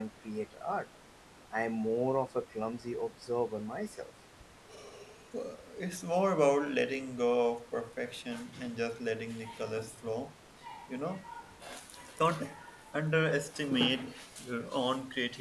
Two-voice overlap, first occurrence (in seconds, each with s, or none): none